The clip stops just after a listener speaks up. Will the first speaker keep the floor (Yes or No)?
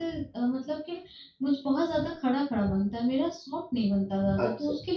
No